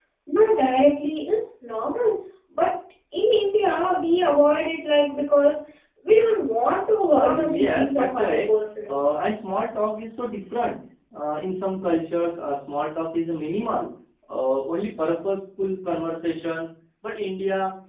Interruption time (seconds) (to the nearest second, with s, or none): 7 s